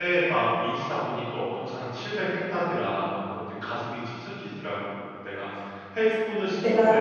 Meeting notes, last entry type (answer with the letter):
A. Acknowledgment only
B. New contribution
A